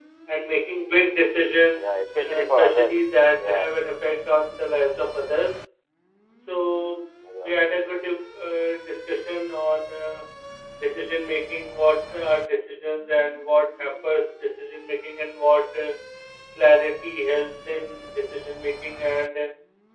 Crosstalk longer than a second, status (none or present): present